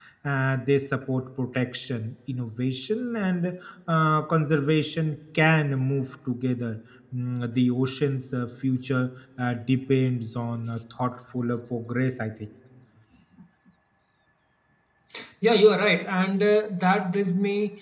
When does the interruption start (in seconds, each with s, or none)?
none